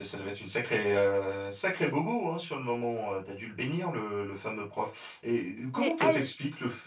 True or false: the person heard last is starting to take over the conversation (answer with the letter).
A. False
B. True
A